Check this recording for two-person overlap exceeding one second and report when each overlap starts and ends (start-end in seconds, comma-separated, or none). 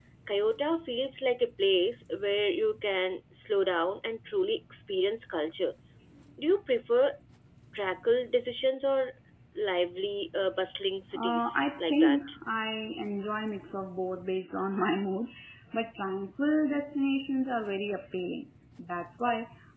11.2-12.4